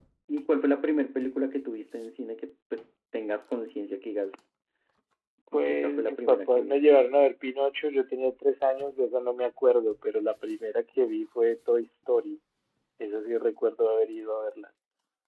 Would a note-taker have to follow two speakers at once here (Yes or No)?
Yes